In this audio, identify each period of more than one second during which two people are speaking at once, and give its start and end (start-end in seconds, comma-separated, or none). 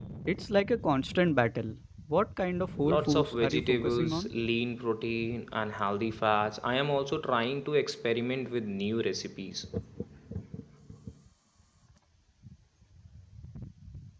2.8-4.3